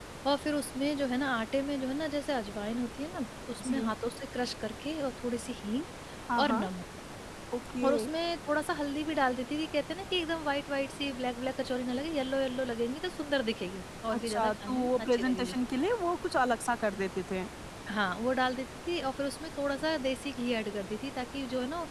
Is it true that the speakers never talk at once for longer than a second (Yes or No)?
No